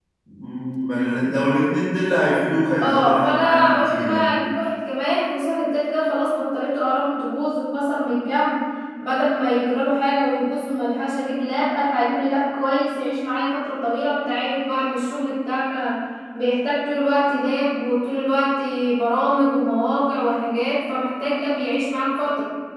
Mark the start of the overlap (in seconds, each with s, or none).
2.8 s